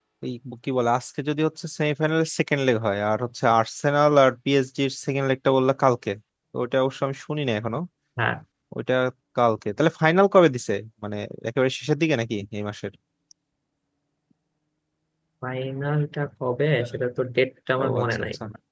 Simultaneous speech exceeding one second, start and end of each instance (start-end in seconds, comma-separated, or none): none